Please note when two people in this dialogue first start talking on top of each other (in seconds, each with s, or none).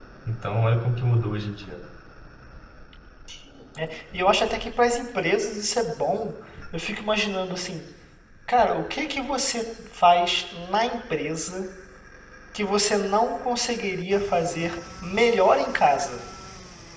none